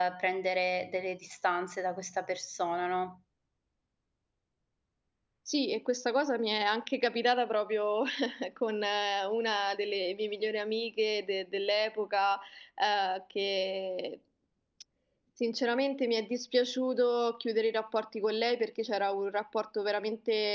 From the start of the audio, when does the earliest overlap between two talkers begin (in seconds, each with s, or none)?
none